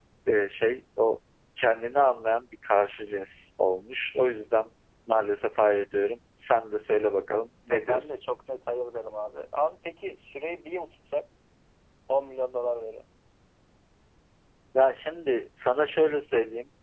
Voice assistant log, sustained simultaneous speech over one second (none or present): none